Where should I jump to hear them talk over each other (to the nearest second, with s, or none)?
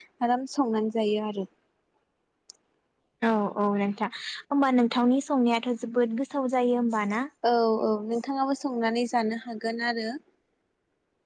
none